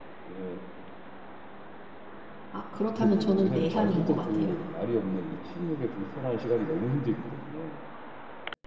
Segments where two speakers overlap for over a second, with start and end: 2.8-4.6

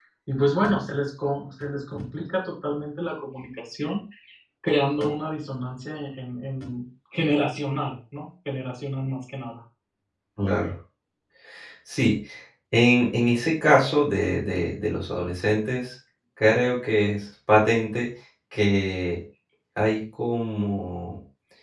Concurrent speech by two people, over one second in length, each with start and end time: none

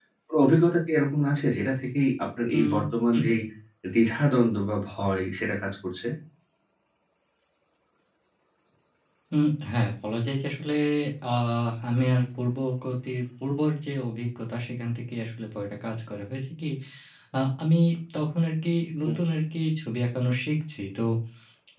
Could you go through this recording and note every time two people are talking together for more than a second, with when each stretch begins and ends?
none

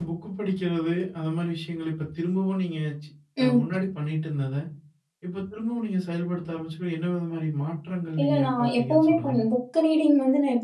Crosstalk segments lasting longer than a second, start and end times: 8.2-9.5

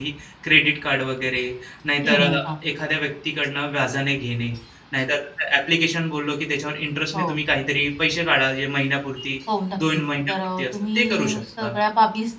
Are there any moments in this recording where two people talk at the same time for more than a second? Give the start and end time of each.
9.9-11.7

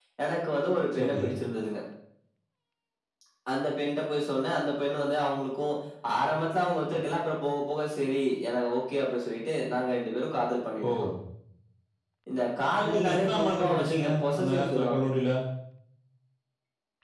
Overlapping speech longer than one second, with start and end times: 12.9-15.0

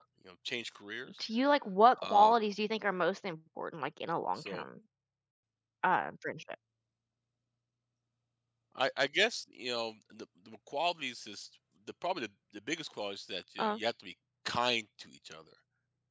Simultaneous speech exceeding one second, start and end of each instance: none

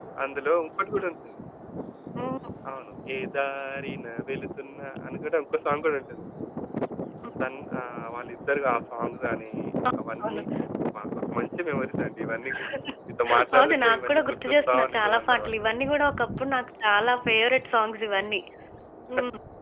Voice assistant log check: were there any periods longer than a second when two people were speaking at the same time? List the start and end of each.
13.6-15.7

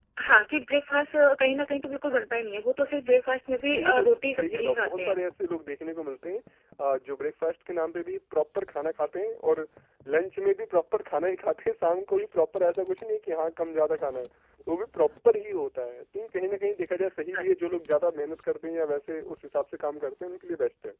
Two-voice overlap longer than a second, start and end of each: 3.8-5.2

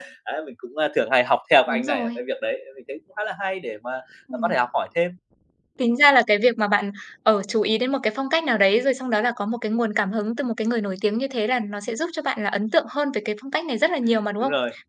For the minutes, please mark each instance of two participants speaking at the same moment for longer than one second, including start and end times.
none

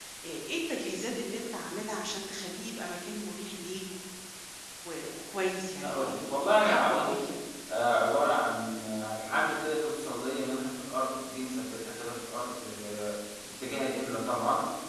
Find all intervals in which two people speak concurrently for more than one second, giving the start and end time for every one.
5.8-7.2

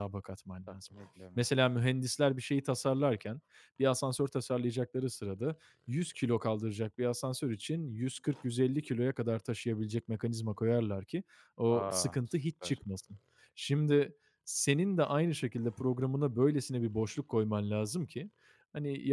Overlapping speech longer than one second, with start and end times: none

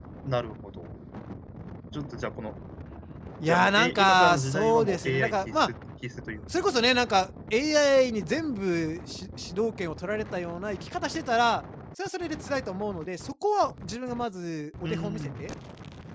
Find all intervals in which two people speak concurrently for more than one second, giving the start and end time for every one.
3.5-5.6

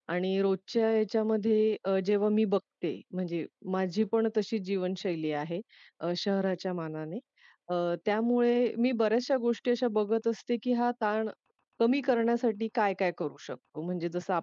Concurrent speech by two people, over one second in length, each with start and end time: none

